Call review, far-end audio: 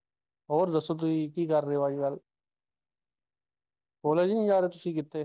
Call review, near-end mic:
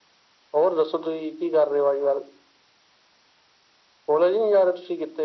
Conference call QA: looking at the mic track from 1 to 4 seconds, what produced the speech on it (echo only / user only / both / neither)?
echo only